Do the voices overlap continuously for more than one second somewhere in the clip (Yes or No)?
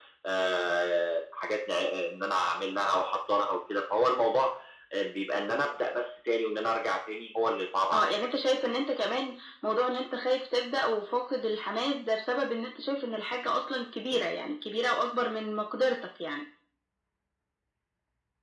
No